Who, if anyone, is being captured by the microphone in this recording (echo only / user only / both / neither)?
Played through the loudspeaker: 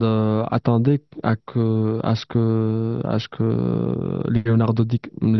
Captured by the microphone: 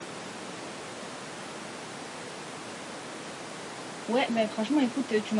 user only